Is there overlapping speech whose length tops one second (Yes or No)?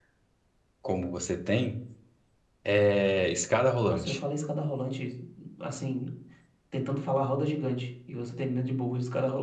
No